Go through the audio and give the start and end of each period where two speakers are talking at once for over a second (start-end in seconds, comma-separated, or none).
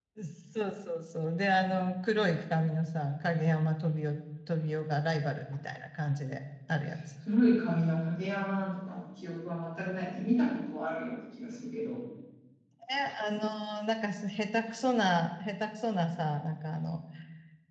none